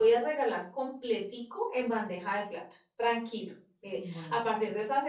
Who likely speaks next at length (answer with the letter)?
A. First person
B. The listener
A